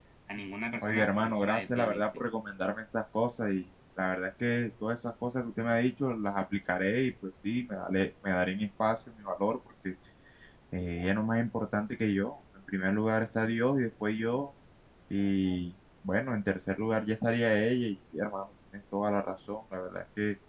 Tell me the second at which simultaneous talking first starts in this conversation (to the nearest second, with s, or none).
1 s